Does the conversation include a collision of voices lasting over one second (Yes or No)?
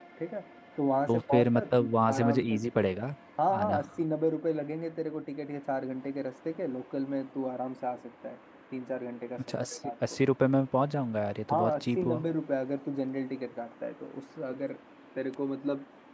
Yes